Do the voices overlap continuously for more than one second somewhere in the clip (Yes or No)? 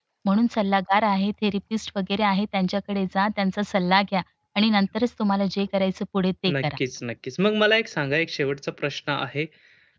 No